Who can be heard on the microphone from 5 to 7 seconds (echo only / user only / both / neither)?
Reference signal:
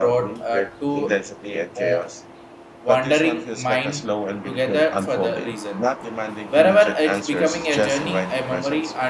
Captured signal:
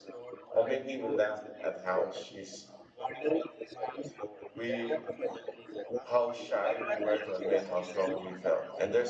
both